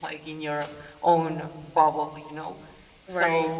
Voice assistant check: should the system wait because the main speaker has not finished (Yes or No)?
Yes